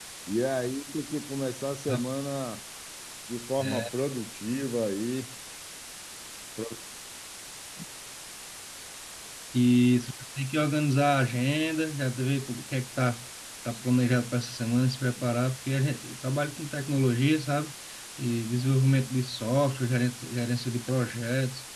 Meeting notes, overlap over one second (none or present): none